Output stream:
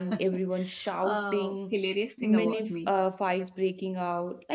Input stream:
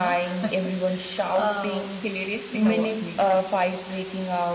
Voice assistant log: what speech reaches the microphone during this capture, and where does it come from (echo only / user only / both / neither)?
echo only